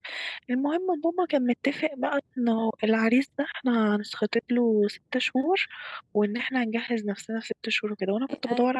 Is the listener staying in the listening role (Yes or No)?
Yes